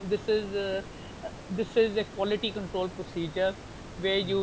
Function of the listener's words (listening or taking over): listening